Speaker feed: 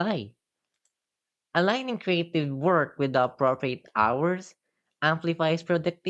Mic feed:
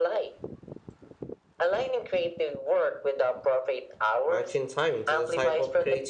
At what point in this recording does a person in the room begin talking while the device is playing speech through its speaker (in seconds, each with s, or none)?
4.3 s